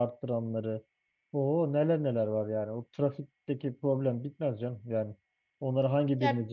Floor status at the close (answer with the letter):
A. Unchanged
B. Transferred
A